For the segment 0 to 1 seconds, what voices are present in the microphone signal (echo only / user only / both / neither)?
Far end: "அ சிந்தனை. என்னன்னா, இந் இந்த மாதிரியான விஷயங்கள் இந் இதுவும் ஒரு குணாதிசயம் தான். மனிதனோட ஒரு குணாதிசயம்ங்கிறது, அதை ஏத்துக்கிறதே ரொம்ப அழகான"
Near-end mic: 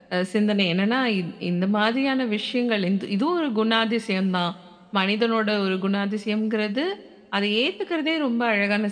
echo only